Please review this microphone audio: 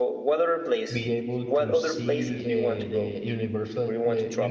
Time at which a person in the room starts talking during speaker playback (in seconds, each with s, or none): 0.9 s